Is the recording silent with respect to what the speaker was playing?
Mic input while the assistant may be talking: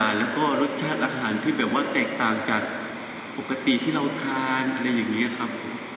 No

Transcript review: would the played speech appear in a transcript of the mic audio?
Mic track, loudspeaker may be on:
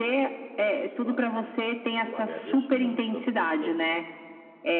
Yes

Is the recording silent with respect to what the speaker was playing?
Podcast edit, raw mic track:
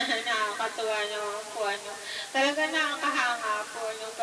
No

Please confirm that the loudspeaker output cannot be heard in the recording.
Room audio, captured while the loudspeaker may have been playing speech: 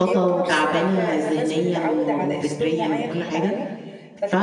No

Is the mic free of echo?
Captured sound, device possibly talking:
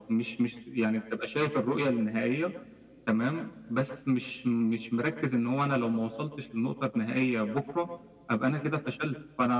No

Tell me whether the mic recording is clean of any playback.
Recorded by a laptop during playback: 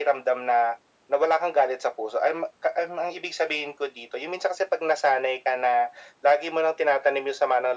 No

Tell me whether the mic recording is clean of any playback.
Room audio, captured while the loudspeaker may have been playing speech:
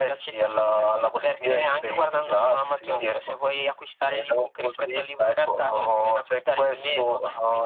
No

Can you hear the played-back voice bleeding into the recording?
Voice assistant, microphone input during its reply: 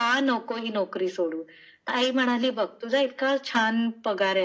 Yes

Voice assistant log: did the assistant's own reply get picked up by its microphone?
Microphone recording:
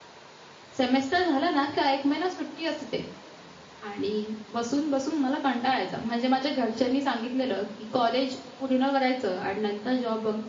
No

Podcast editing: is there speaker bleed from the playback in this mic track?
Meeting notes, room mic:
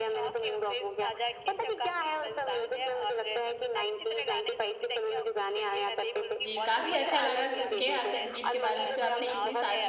Yes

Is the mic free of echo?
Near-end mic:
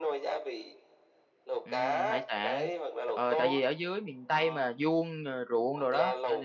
No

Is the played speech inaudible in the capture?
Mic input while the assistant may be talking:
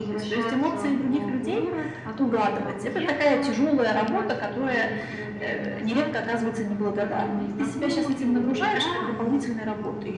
No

